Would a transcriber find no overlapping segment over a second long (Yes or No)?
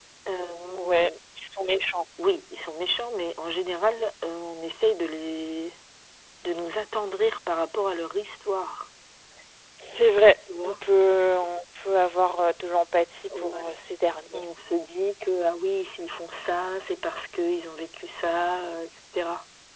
Yes